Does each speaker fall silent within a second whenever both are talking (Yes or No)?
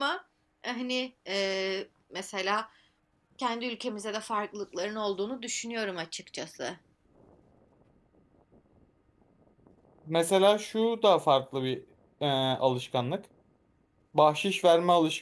Yes